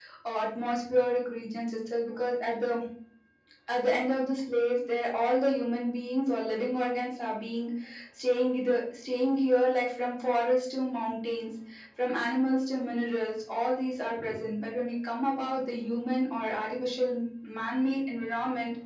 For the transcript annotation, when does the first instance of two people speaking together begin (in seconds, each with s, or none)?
none